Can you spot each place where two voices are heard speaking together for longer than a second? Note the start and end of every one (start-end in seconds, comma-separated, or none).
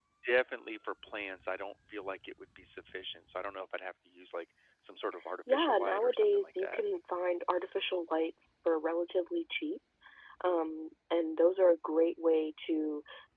5.5-6.8